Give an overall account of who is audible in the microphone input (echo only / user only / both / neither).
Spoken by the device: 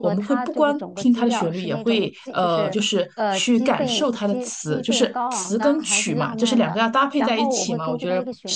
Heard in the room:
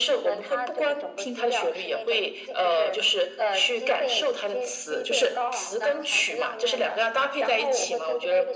echo only